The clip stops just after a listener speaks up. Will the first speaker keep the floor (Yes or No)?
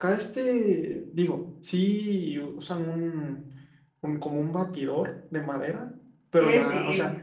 Yes